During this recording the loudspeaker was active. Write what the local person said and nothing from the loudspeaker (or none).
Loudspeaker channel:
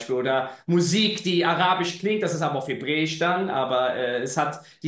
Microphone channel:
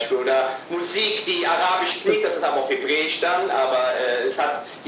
Absolut.